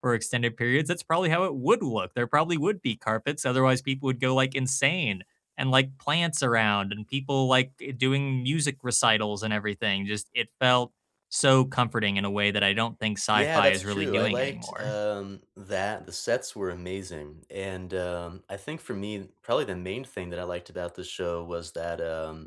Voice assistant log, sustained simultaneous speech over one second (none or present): present